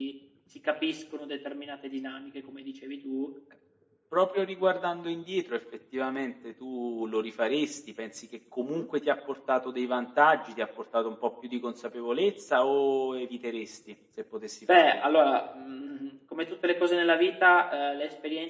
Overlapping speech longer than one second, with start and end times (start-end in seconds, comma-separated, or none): none